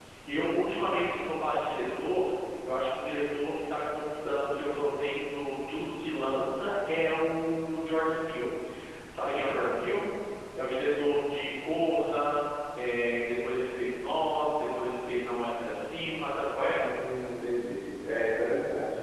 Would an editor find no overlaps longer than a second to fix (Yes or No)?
Yes